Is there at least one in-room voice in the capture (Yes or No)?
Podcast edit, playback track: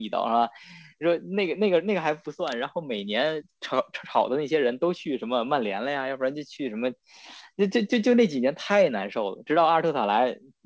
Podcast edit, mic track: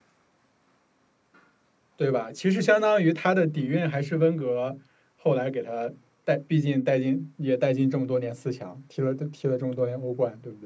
Yes